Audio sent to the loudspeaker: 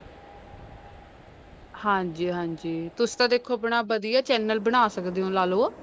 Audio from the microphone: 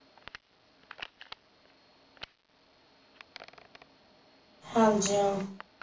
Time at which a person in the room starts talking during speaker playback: 4.8 s

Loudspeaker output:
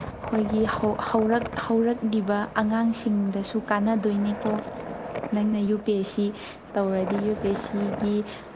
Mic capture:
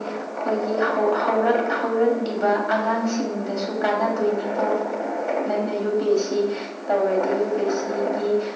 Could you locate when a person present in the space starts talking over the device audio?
none

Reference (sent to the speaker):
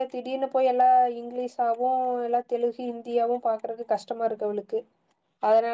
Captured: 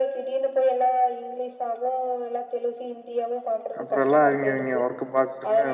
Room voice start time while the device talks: 3.8 s

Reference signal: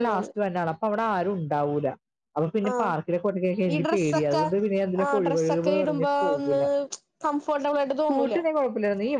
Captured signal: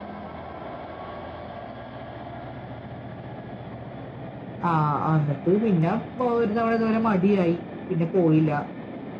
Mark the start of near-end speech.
4.7 s

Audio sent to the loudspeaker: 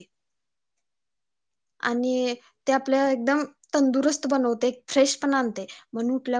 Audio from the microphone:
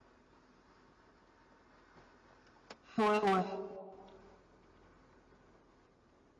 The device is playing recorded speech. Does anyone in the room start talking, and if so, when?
3.0 s

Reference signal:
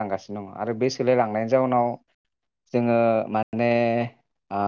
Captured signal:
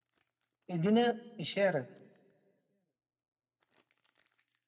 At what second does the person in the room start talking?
0.8 s

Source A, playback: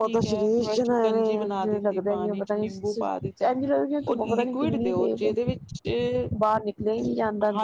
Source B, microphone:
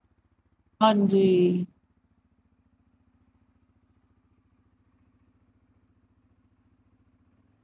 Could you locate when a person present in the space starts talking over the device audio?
0.8 s

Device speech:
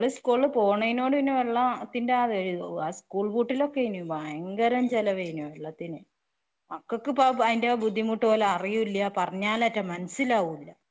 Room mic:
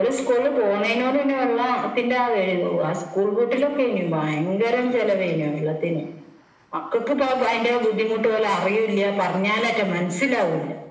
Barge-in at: none

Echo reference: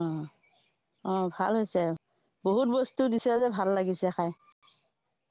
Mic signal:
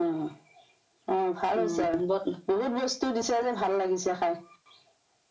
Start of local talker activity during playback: 1.6 s

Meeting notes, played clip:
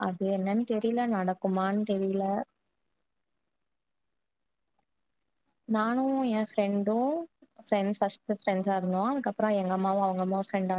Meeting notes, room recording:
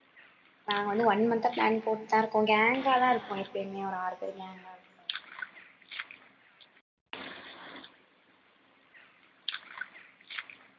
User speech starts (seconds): 0.7 s

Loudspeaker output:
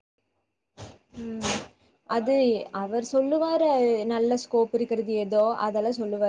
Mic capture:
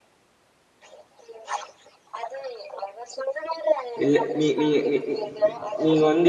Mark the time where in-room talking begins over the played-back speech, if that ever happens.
4.0 s

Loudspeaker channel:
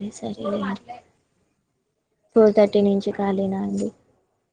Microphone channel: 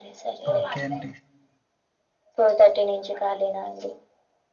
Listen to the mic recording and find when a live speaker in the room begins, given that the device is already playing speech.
0.5 s

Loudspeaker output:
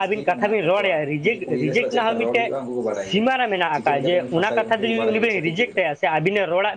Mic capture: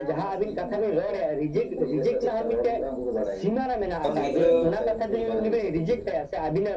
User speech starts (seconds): 4.0 s

